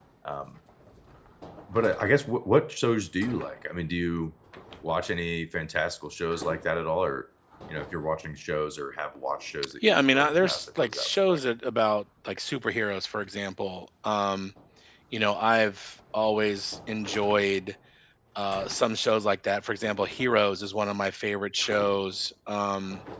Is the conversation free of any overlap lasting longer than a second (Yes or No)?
No